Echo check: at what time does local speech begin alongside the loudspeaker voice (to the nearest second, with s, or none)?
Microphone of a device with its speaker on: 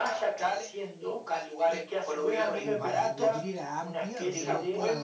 3 s